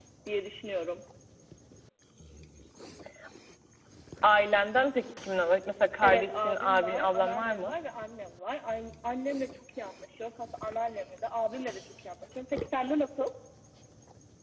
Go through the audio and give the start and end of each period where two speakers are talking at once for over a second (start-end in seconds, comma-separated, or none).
6.0-7.7